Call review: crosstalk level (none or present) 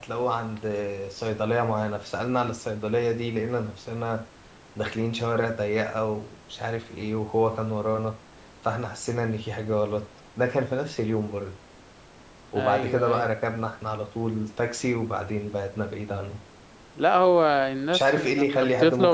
present